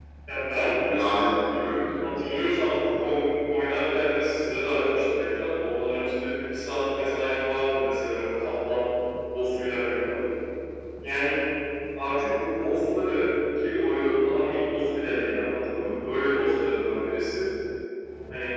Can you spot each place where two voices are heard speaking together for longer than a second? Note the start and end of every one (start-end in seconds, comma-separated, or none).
none